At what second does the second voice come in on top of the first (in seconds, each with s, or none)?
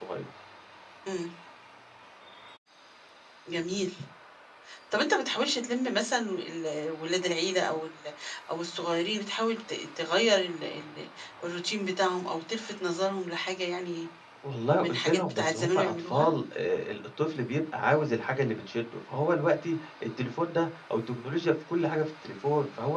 14.8 s